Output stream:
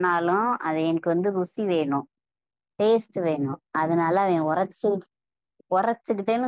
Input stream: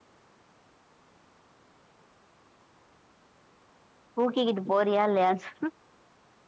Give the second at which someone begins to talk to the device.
4 s

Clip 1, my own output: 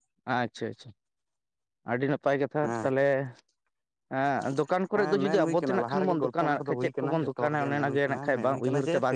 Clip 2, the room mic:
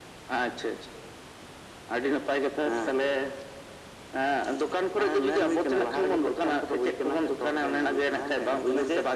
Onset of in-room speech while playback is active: none

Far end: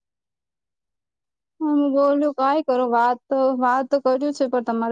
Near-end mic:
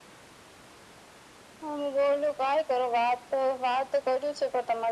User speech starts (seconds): none

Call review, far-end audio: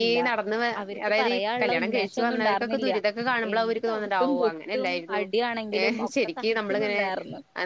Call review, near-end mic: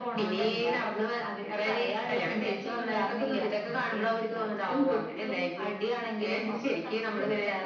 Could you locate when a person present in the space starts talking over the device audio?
none

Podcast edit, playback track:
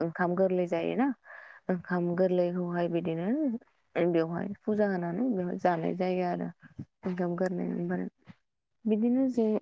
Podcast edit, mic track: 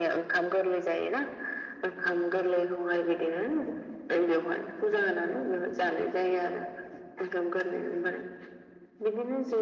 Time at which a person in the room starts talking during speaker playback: none

